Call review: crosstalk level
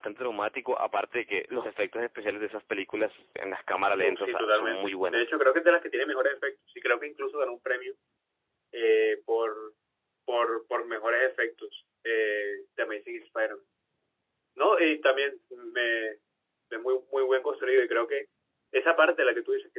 present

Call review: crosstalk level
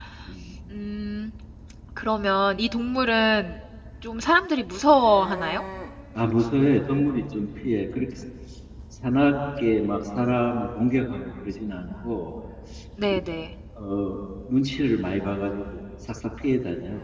none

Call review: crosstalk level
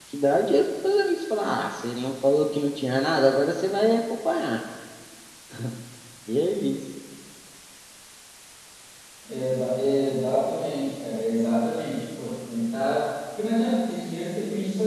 none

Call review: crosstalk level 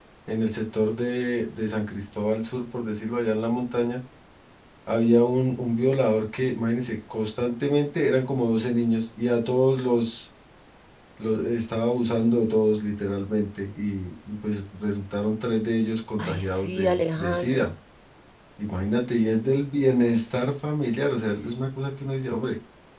present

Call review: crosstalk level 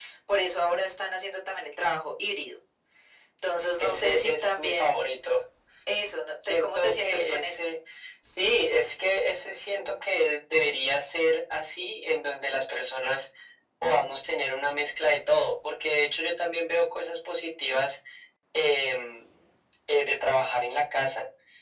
present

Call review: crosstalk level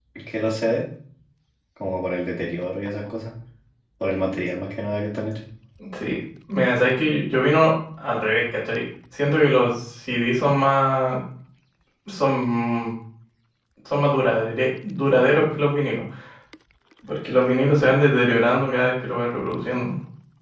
none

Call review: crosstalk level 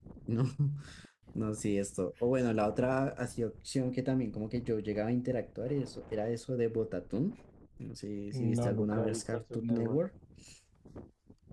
present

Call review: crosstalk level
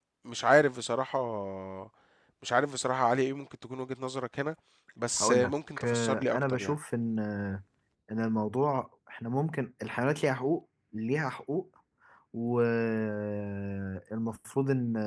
present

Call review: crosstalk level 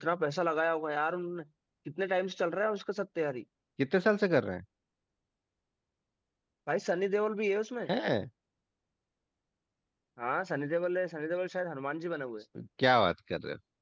none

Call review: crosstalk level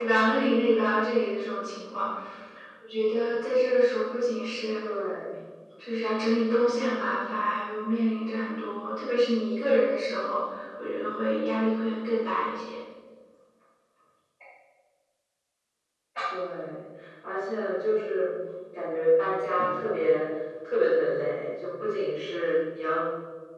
none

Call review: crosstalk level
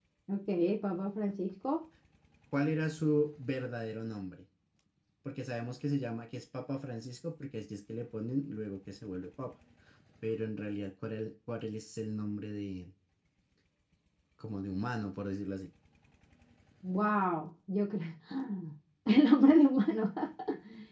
none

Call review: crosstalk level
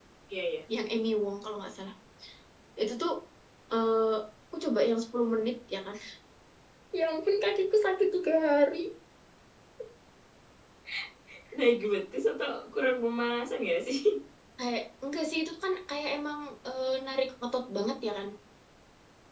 none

